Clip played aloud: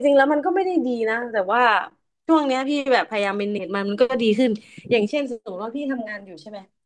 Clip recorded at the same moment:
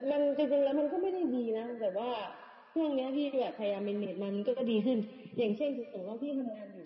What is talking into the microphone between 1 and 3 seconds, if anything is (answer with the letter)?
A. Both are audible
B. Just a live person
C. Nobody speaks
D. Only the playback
D